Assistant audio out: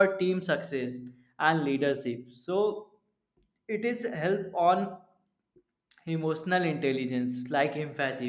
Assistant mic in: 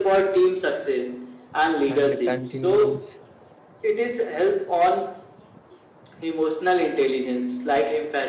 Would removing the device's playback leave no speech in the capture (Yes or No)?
No